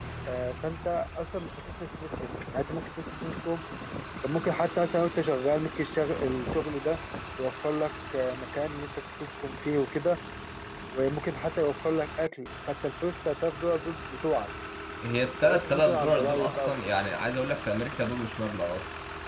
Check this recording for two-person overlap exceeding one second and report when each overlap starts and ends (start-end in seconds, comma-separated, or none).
15.4-16.6